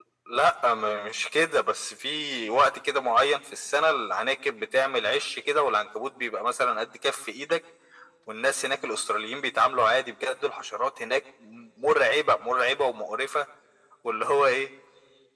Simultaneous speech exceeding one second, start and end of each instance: none

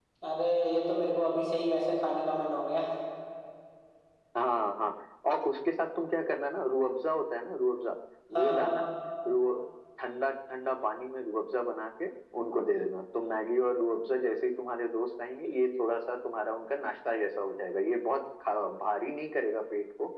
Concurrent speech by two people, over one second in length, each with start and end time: none

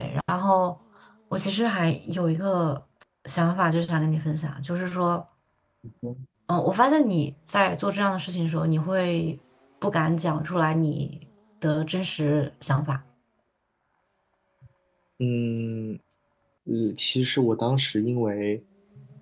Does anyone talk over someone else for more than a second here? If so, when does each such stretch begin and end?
none

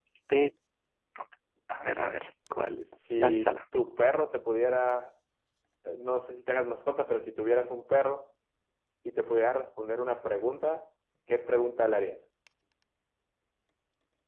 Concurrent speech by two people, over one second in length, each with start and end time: none

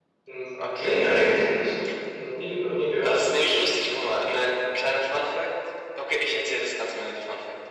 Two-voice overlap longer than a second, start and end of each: 3.0-4.3

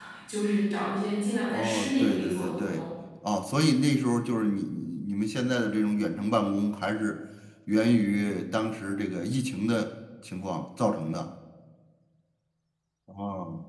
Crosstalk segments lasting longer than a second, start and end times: 1.5-2.9

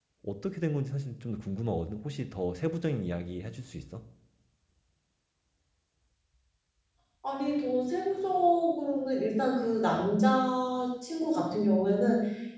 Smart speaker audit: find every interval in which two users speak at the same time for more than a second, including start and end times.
none

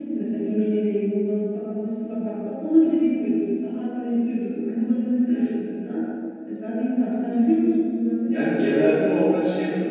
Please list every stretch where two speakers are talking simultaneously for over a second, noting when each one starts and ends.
none

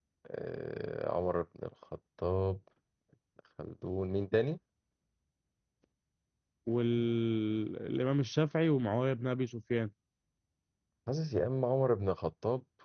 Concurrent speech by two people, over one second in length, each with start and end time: none

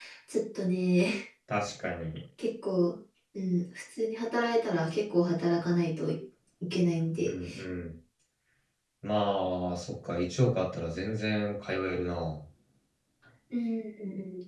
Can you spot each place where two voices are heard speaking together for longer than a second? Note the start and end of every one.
none

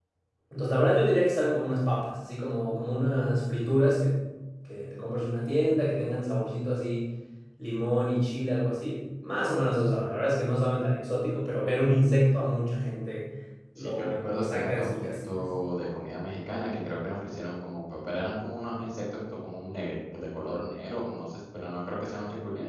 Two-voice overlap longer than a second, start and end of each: 13.8-15.4

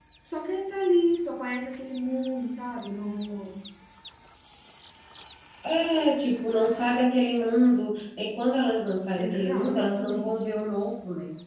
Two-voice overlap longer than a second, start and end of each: 9.2-10.4

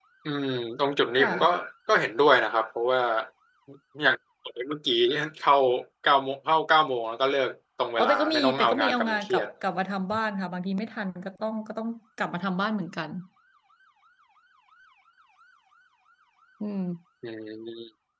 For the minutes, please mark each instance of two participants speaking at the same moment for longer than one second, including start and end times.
8.0-9.5

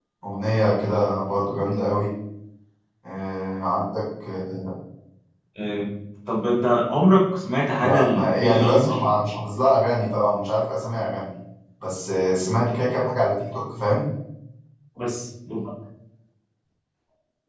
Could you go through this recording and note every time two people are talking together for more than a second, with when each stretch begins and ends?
7.8-9.0

